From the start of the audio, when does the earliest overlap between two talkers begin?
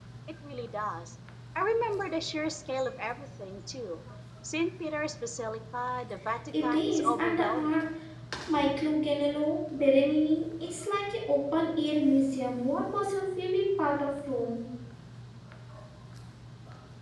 6.5 s

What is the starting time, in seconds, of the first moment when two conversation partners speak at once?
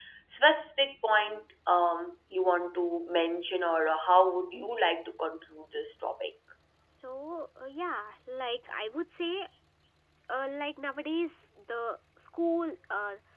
none

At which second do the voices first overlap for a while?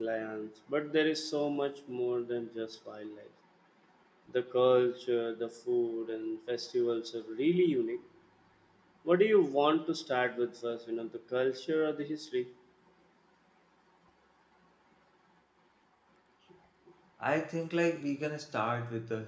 none

